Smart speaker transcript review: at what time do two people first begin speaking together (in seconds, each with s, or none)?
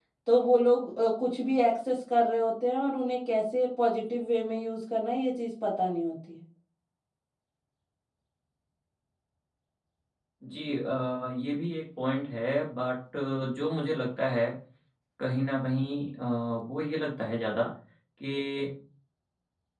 none